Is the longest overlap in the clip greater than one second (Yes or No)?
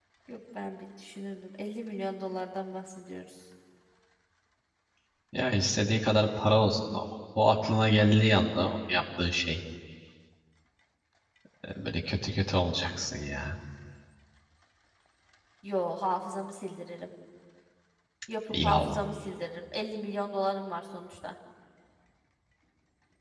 No